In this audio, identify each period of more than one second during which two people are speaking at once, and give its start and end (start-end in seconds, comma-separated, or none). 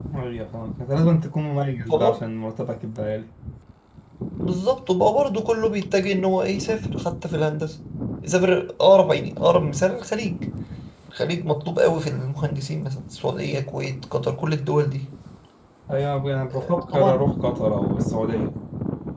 none